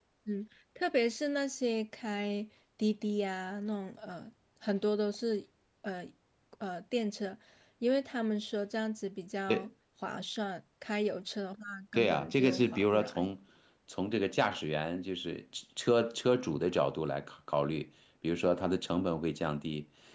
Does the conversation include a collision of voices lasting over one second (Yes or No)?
Yes